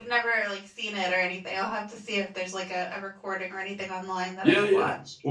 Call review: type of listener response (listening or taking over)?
taking over